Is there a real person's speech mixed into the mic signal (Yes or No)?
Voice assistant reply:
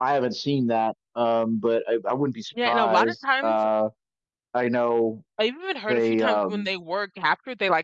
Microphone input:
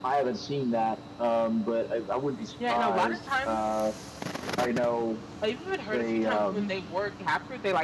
No